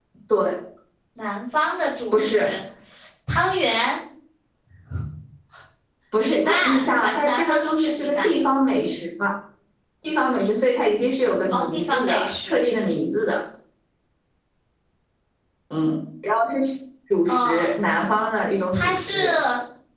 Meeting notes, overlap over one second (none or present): present